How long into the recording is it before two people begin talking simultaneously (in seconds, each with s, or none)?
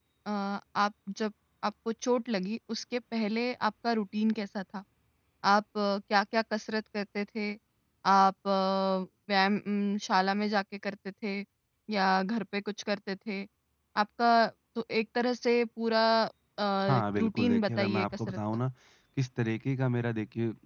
16.9 s